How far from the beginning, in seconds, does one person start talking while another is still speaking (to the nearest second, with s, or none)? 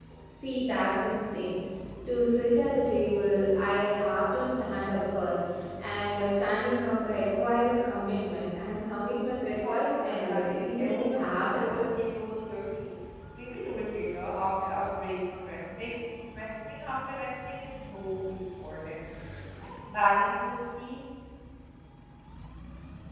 10 s